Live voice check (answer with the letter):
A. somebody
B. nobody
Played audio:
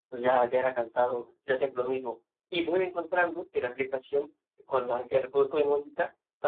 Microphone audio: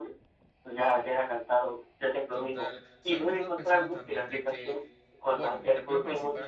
A